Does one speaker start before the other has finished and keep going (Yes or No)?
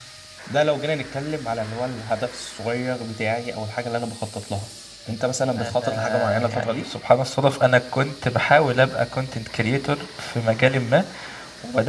Yes